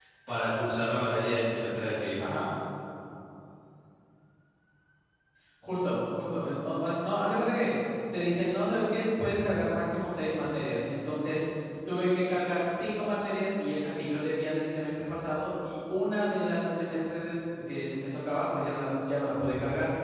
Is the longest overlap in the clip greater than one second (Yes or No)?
No